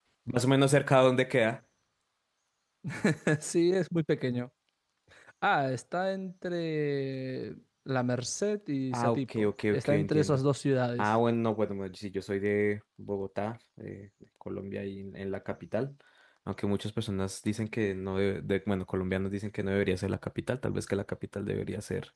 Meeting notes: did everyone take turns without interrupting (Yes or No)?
No